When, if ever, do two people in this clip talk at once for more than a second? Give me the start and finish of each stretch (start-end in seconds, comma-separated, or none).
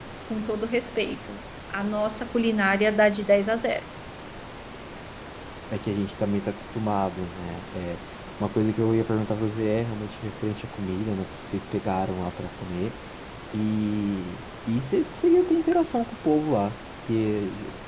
none